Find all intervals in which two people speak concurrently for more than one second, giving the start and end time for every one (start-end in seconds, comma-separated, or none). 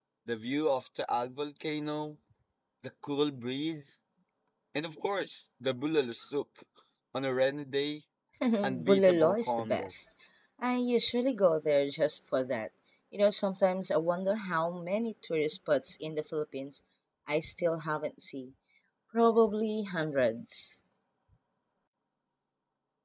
8.6-9.9